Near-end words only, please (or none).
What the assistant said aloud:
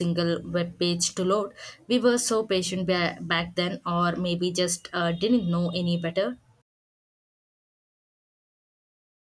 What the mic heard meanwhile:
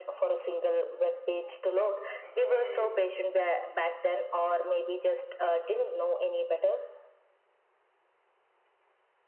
Uh,